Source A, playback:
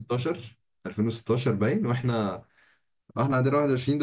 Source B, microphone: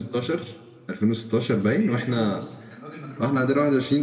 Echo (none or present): present